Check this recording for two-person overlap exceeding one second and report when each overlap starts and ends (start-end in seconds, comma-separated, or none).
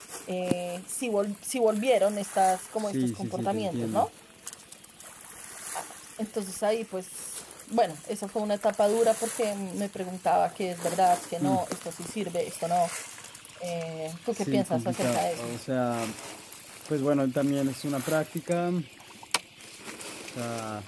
2.8-4.1, 14.3-15.5